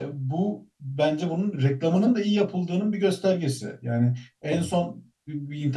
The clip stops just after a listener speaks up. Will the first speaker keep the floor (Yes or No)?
Yes